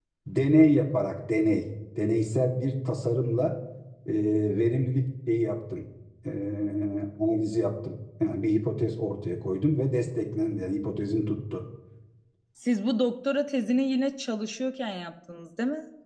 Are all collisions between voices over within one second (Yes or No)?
Yes